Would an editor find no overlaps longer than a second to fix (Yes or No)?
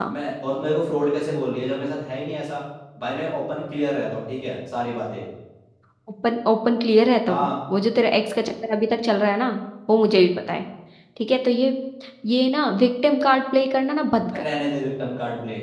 Yes